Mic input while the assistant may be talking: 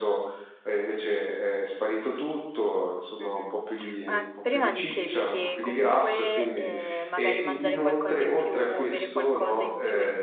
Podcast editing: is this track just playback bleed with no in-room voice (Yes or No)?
No